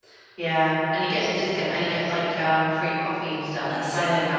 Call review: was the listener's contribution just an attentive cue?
No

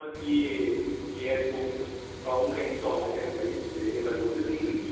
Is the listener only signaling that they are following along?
No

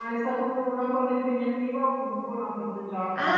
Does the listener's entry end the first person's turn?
Yes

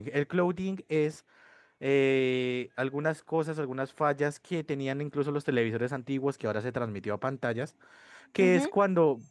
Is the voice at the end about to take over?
No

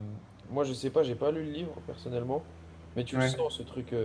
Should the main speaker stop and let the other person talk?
No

